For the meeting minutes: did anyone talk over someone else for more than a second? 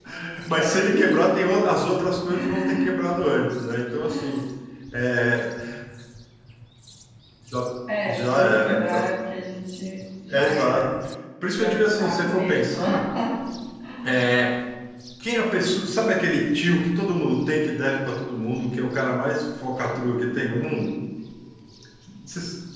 Yes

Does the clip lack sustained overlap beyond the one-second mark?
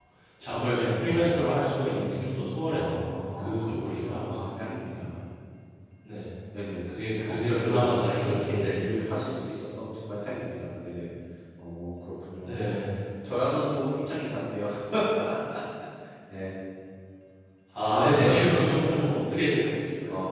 No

